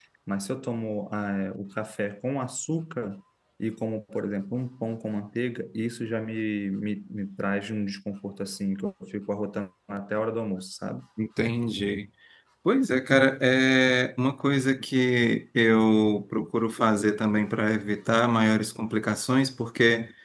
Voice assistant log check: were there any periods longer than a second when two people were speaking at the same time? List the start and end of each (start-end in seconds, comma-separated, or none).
none